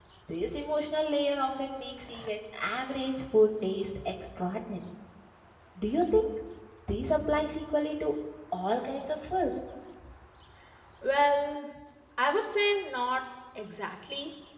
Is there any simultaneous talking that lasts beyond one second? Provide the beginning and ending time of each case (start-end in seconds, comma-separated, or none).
none